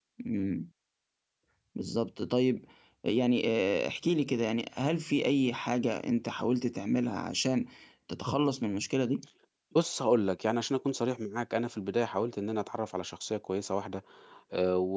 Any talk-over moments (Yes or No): No